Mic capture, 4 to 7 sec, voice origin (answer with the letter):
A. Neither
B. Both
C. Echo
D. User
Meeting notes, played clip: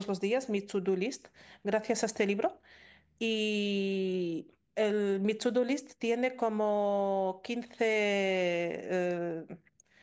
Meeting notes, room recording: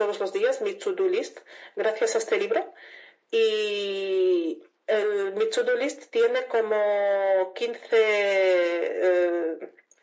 C